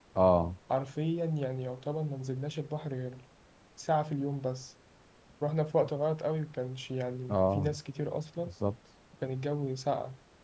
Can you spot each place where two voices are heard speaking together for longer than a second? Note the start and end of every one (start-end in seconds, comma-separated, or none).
none